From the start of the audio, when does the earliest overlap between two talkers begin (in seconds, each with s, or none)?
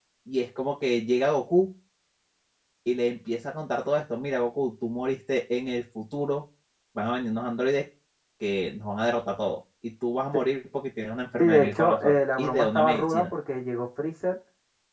11.4 s